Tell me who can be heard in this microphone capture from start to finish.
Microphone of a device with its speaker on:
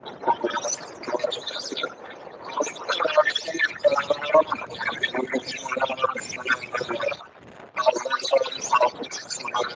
echo only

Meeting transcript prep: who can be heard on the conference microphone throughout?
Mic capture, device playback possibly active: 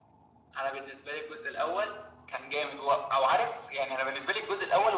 echo only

